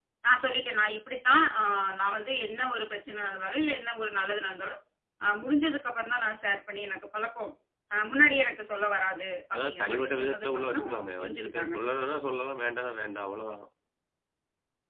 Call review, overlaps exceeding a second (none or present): present